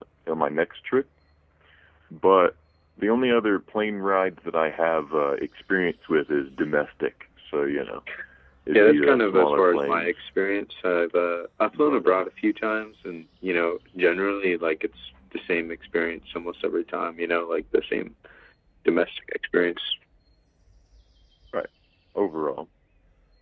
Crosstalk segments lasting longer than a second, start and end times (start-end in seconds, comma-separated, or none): 8.7-10.2